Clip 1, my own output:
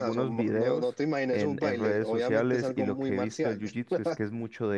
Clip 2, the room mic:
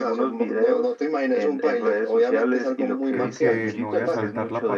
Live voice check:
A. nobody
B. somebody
B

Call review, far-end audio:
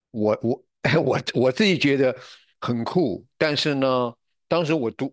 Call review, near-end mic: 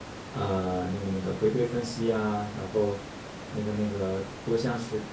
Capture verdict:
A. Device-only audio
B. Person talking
B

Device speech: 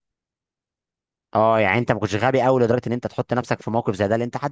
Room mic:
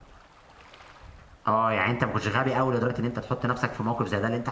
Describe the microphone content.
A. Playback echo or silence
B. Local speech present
A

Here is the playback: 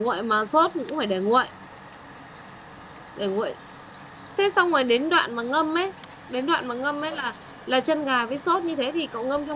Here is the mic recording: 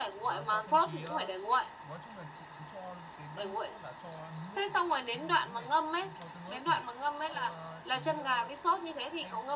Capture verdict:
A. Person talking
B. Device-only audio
A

